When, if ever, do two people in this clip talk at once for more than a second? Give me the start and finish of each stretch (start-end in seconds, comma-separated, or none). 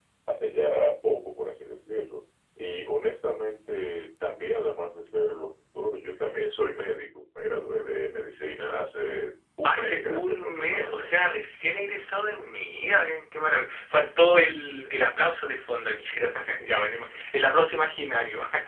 9.6-11.2